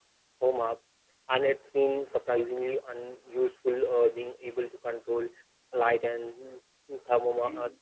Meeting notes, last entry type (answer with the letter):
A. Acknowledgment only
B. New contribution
A